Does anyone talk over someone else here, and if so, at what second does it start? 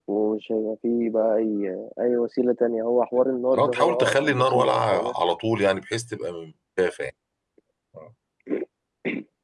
3.5 s

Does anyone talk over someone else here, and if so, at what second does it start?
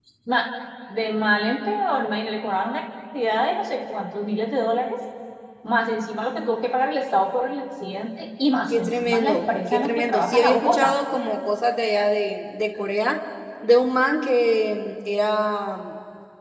8.7 s

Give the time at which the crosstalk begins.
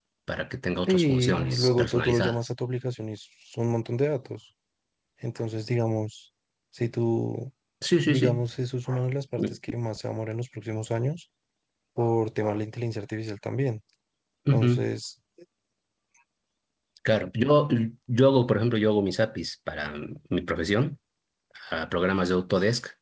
0.9 s

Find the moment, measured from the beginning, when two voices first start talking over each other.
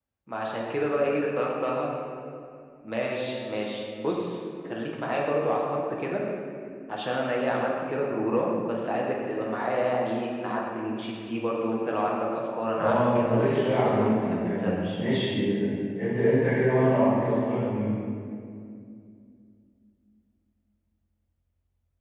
12.8 s

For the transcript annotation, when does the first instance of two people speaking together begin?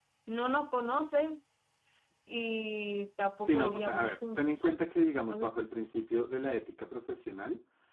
3.4 s

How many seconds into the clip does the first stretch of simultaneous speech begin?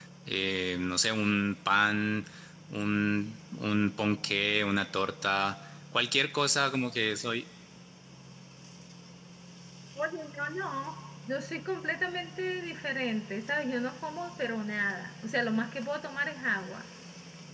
none

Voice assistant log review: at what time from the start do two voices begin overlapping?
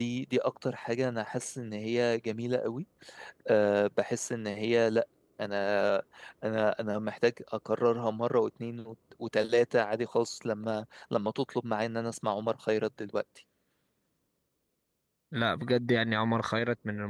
none

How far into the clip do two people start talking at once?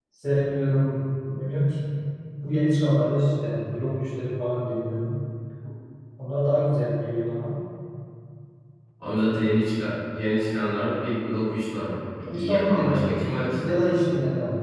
12.3 s

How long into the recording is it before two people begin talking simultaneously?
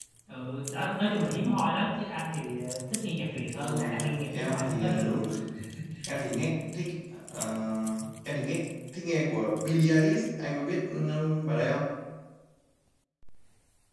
3.5 s

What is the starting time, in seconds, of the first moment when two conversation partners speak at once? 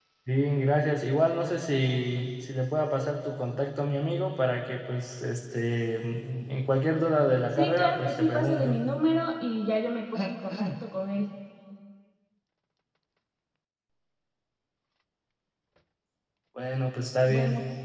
7.5 s

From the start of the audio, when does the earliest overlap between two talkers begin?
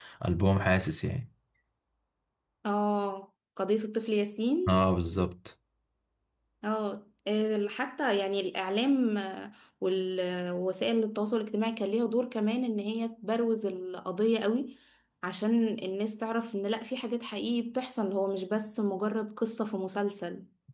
none

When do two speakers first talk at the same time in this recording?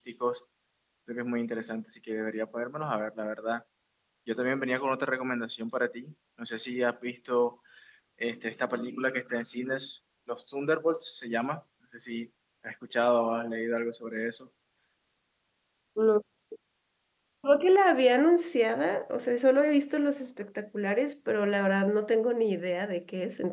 none

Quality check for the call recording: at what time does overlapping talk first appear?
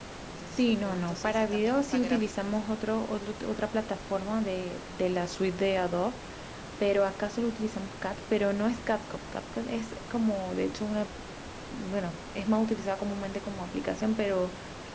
0.6 s

